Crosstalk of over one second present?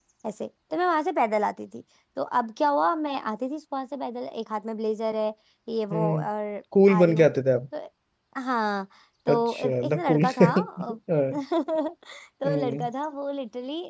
Yes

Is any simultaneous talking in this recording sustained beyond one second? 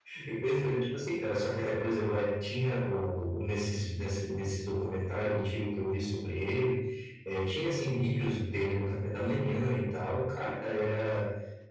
No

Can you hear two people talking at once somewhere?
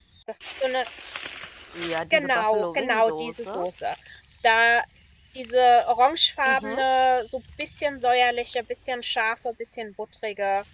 Yes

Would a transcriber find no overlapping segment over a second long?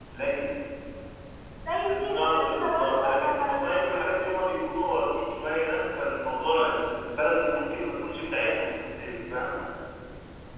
No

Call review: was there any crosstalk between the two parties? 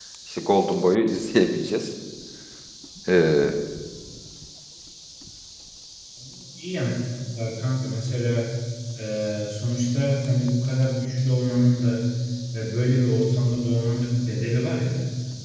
No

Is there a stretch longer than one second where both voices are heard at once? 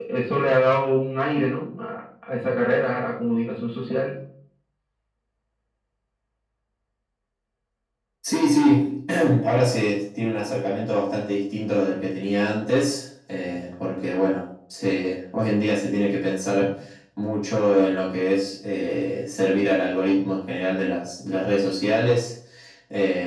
No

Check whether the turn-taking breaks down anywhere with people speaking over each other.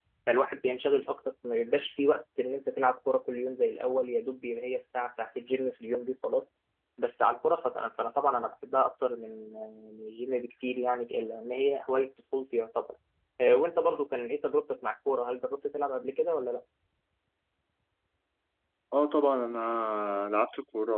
No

